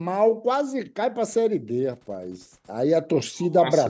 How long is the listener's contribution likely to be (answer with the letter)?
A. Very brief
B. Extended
A